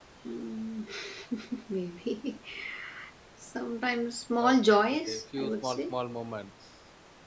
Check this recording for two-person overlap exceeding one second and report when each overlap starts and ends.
4.4-5.9

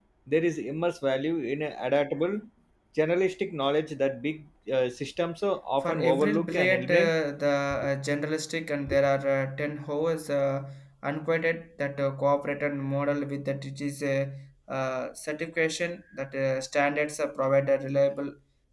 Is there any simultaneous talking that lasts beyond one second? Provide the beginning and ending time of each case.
5.8-7.1

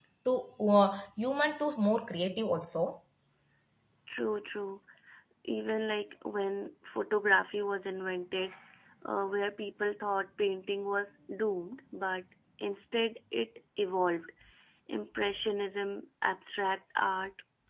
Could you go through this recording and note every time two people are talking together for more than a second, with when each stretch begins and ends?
none

